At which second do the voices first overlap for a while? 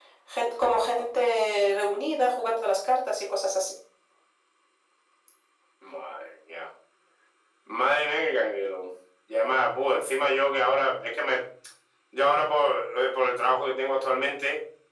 none

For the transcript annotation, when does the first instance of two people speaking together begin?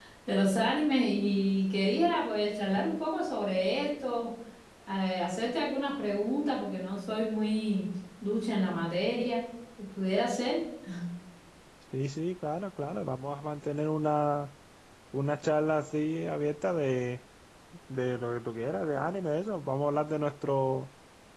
none

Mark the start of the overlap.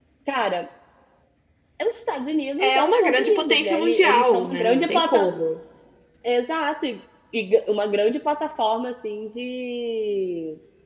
2.6 s

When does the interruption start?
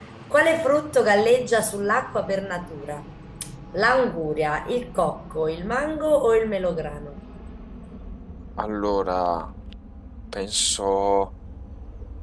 none

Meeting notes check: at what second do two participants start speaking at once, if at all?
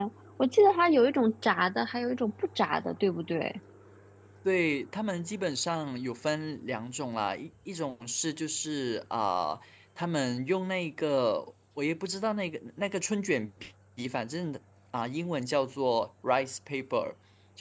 none

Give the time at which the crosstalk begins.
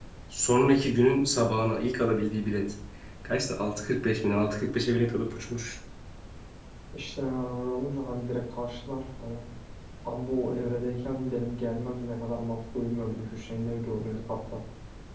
none

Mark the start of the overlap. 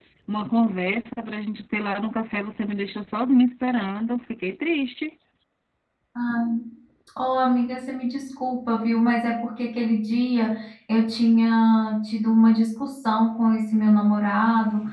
none

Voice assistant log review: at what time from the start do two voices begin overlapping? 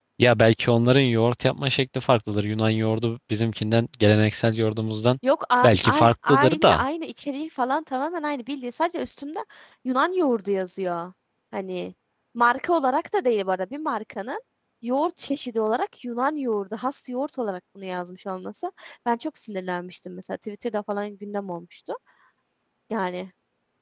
5.6 s

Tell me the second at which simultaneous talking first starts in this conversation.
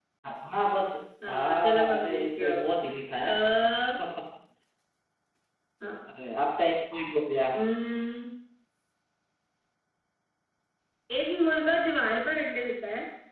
1.3 s

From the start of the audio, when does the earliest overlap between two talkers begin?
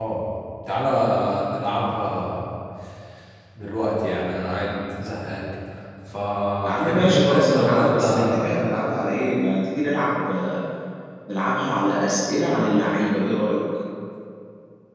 6.6 s

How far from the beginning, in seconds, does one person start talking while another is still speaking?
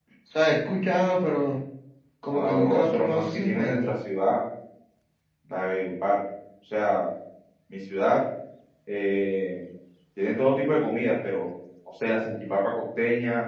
2.3 s

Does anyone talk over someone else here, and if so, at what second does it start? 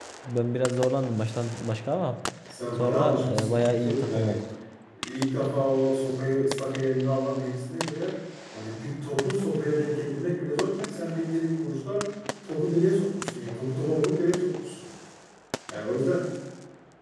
2.8 s

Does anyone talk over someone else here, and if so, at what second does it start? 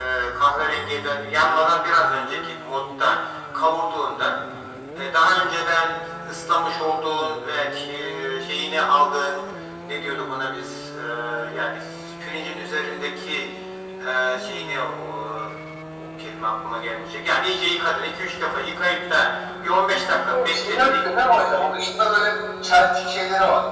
19.7 s

